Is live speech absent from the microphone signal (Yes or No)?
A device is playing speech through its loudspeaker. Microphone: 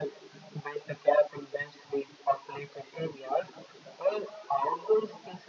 Yes